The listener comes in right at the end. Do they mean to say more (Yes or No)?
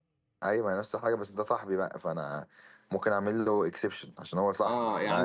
Yes